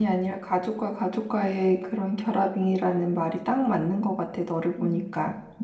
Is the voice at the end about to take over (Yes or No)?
Yes